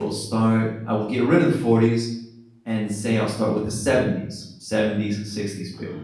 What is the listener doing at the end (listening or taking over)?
listening